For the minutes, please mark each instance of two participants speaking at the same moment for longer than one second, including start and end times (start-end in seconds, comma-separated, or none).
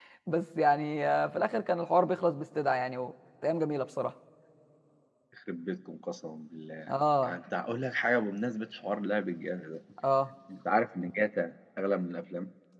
none